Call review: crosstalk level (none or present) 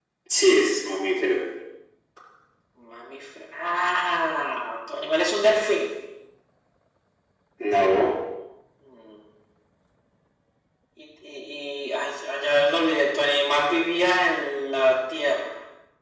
none